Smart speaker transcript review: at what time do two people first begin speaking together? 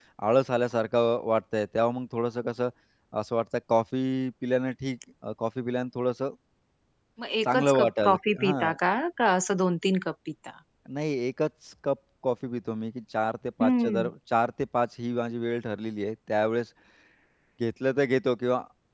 7.4 s

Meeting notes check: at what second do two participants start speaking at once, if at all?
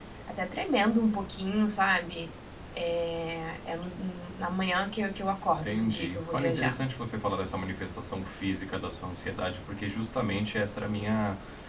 5.6 s

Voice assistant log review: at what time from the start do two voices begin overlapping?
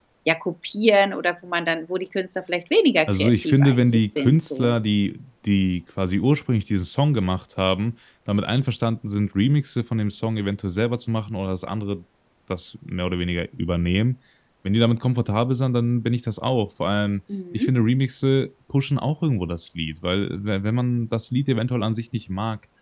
3.1 s

